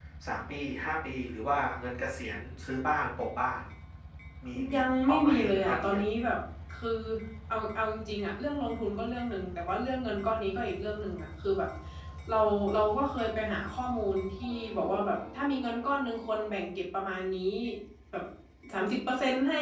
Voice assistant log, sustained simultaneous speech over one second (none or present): present